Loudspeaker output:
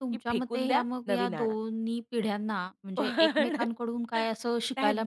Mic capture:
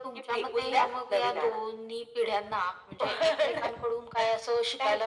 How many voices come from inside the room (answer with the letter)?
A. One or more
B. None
B